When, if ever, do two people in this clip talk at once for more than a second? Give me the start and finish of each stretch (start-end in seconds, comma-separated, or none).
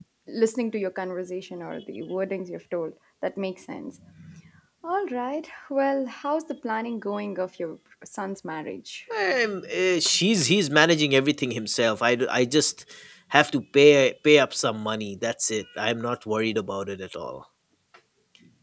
none